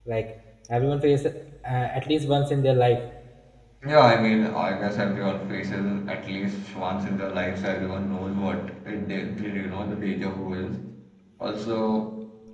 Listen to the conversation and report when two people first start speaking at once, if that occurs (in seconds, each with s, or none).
none